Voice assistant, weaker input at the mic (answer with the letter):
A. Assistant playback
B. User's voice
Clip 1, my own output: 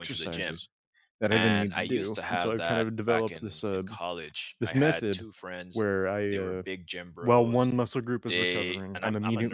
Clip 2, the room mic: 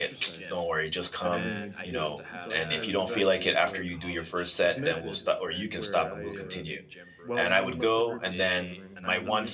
A